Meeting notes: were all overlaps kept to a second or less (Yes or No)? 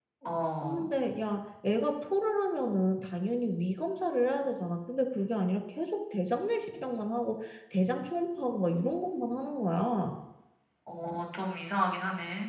Yes